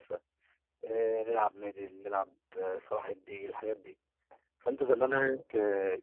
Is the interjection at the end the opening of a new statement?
No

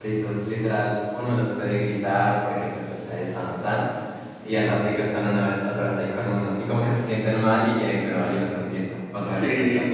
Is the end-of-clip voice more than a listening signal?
Yes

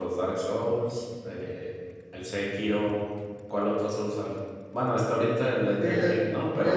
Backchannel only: No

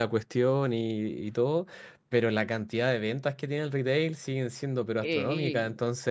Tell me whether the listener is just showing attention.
Yes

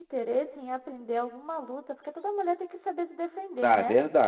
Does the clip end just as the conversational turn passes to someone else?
Yes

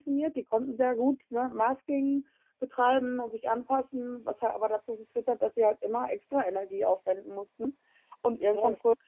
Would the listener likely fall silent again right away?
Yes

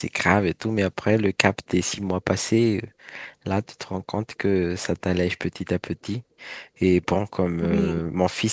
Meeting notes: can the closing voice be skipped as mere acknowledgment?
Yes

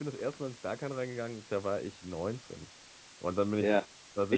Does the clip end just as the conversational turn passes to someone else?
Yes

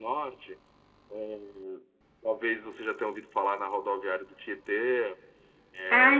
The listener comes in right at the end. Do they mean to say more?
Yes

